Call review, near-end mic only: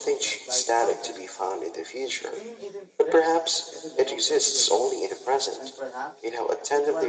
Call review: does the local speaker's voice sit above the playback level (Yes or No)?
No